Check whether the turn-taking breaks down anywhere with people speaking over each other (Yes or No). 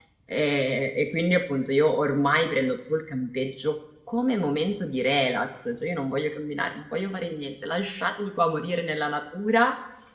No